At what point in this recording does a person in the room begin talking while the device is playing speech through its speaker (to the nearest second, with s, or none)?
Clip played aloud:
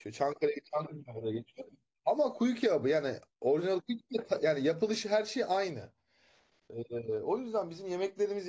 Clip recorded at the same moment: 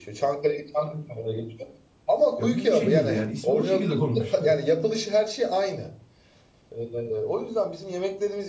2 s